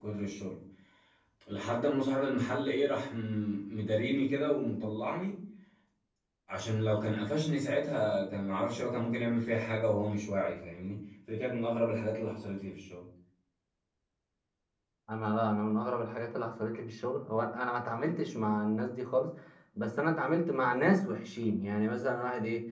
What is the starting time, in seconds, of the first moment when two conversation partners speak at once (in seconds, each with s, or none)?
none